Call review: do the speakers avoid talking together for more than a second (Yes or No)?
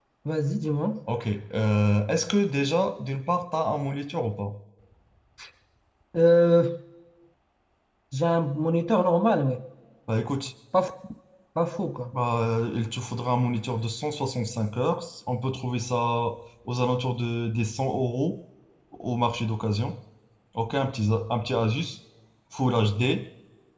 Yes